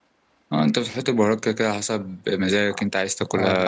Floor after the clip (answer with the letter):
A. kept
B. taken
B